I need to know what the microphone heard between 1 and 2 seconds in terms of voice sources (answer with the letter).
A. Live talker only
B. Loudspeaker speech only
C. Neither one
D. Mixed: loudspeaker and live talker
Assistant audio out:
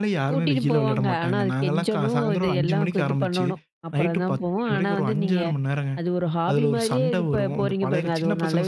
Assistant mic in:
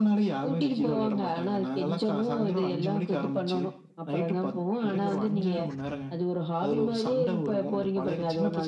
B